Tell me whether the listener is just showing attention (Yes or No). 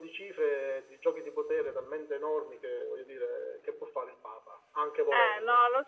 No